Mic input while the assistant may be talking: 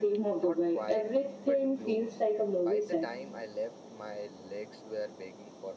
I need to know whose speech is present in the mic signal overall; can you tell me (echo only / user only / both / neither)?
both